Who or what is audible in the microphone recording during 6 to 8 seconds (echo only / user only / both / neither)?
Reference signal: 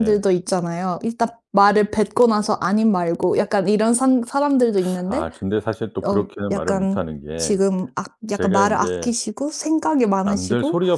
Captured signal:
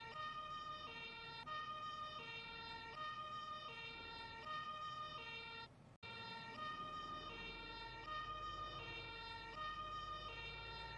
neither